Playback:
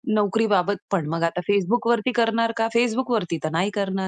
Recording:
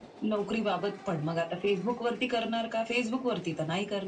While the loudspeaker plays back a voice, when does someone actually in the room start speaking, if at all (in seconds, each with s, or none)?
none